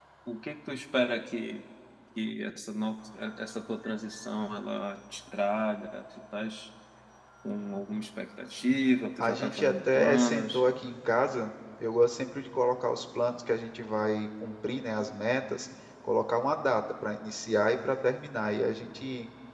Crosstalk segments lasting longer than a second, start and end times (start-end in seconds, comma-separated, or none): 9.2-10.6